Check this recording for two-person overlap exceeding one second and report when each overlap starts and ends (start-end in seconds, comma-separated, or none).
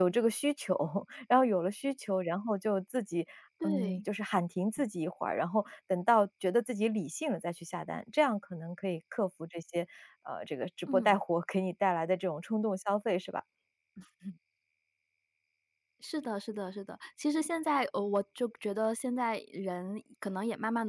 none